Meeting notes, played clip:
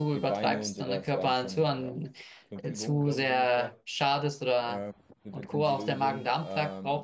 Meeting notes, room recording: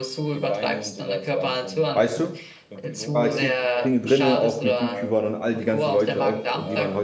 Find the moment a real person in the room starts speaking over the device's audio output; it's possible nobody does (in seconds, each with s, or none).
1.9 s